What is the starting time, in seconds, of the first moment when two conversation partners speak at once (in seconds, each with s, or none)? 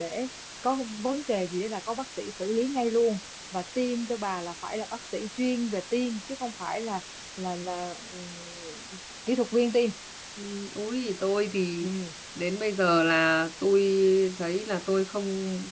none